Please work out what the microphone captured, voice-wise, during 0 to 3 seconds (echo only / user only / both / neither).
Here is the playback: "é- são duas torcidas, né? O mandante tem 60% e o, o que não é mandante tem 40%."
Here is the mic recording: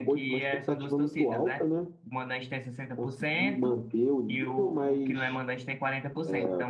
both